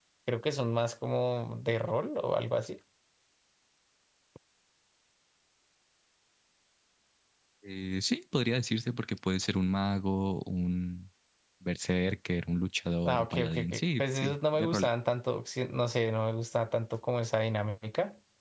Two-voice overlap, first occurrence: 13.1 s

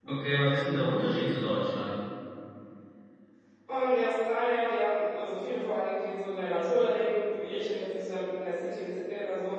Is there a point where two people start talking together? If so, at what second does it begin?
none

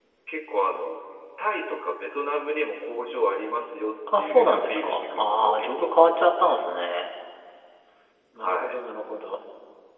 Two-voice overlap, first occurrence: 4.2 s

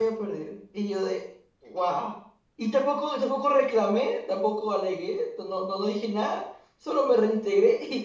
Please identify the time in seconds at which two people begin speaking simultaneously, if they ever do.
none

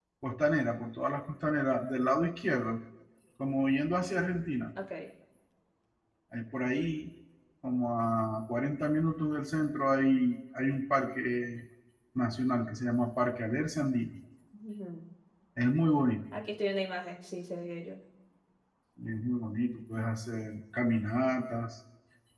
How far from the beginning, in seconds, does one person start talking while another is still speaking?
none

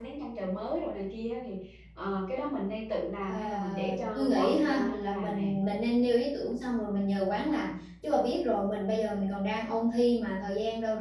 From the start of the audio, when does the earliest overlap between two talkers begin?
3.2 s

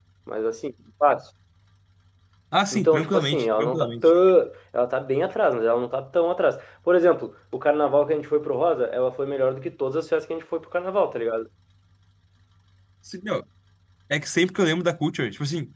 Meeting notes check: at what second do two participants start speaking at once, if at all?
2.7 s

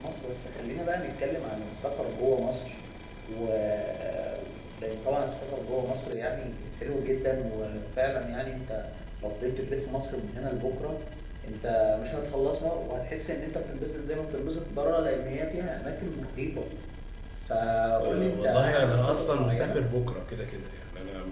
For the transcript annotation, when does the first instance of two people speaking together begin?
18.0 s

